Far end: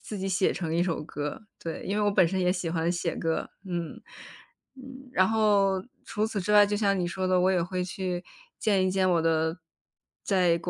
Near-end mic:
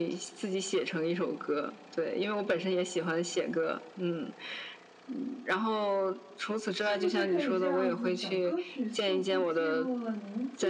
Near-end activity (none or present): present